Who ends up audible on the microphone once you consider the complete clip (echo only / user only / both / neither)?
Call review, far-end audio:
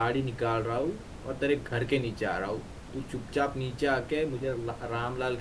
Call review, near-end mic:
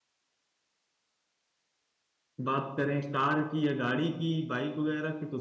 user only